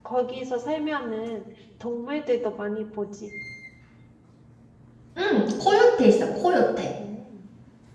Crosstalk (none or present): none